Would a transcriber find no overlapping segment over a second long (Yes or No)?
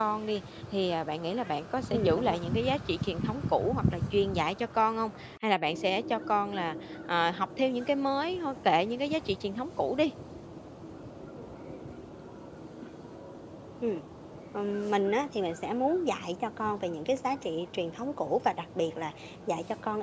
Yes